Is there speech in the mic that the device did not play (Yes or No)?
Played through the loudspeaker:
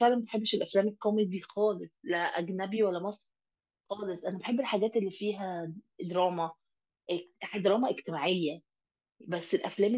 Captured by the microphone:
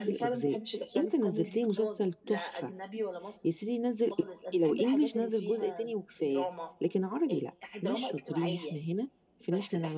Yes